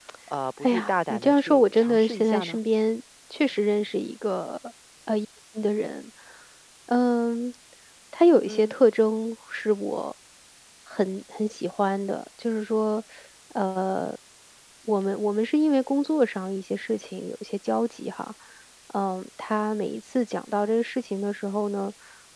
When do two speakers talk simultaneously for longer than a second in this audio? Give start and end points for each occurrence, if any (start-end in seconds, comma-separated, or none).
0.6-2.6